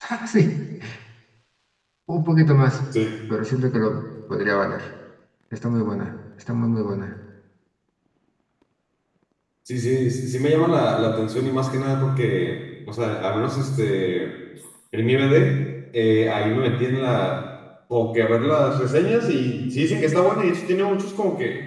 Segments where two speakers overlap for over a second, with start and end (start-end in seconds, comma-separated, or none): none